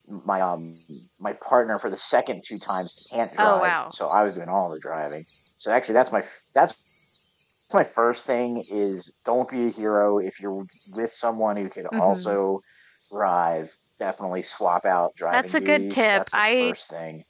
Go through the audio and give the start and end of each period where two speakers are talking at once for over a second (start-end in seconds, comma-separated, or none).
15.3-16.7